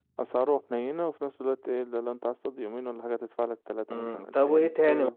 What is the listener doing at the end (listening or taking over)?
taking over